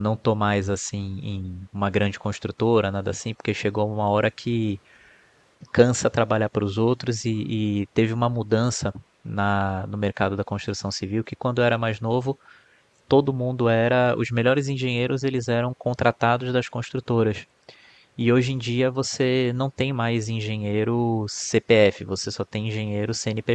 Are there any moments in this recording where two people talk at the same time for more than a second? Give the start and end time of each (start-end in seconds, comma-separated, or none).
none